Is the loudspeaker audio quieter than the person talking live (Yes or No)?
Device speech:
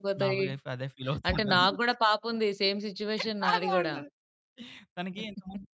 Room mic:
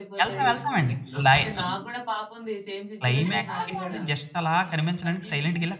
Yes